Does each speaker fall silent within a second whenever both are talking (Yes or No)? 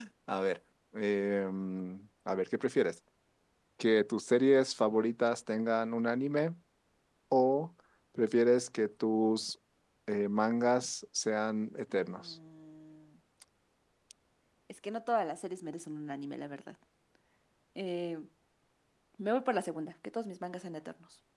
Yes